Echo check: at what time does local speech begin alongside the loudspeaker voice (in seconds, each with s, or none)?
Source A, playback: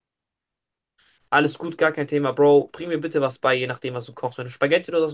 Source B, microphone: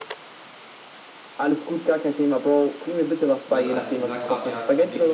3.4 s